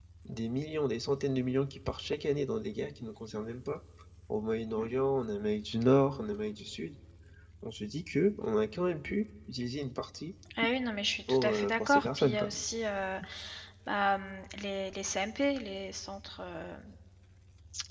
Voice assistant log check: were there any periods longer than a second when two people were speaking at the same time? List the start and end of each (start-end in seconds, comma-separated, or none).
11.3-12.5